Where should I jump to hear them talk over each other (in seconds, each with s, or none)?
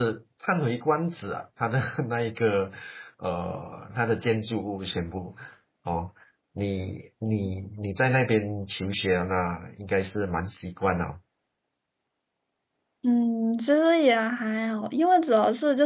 none